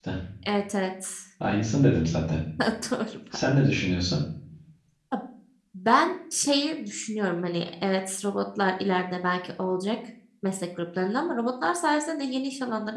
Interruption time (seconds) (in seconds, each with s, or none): none